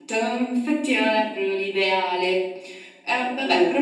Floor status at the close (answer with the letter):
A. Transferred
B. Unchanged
B